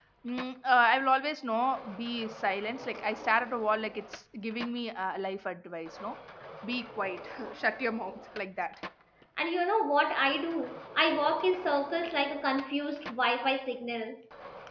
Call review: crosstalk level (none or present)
none